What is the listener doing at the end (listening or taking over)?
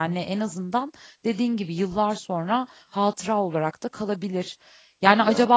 listening